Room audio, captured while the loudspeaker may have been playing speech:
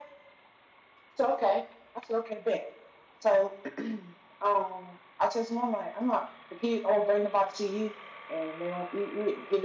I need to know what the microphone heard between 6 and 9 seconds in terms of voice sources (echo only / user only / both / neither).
echo only